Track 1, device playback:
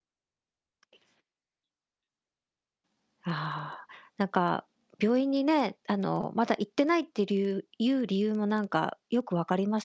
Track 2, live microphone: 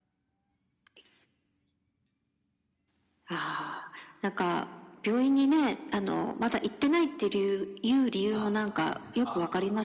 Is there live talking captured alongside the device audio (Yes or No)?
Yes